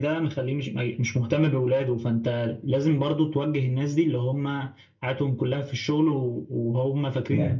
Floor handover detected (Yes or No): No